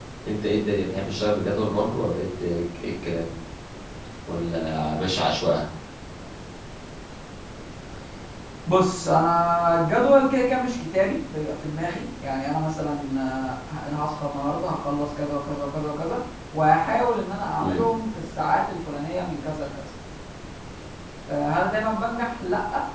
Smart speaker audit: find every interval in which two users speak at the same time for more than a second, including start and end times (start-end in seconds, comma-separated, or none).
none